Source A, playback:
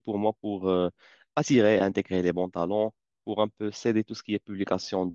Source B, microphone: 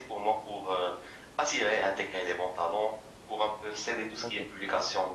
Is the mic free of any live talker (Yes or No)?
No